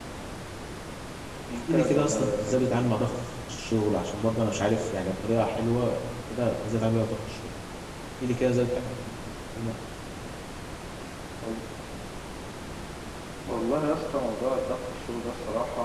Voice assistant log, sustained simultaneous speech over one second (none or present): present